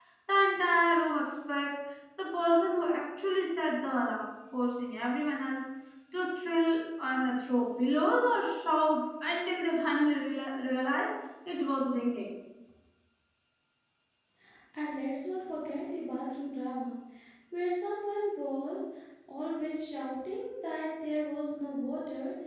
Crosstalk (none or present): none